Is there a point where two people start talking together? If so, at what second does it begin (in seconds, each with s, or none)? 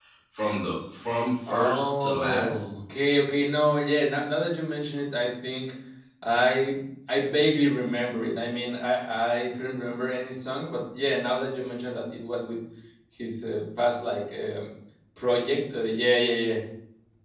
1.5 s